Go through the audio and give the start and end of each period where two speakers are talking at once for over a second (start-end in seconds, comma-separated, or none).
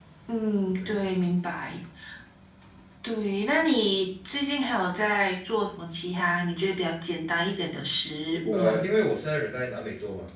none